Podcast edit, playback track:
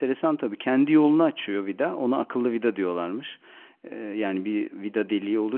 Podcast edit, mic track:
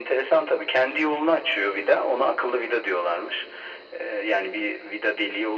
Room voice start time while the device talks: none

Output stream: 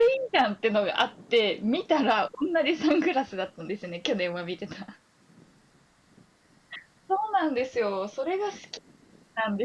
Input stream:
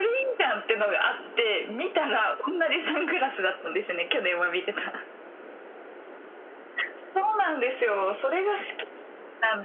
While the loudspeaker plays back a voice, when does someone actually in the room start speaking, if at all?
none

